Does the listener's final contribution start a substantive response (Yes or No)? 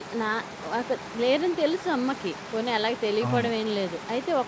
No